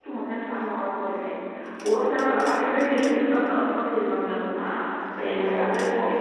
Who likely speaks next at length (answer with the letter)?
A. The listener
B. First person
A